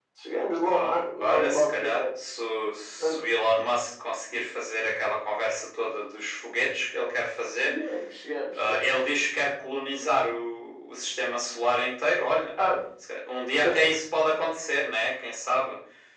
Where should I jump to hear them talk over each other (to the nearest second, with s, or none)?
1 s